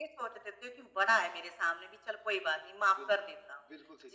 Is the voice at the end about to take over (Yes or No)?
Yes